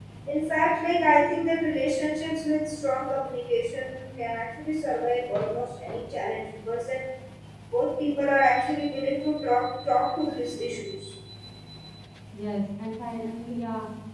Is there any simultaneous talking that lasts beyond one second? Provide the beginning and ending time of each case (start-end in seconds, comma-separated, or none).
none